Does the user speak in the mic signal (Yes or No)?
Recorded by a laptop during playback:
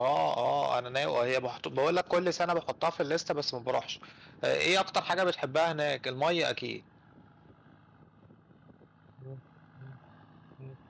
Yes